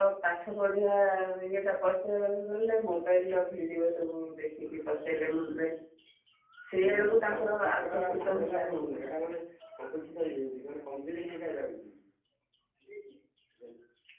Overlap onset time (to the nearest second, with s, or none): 7 s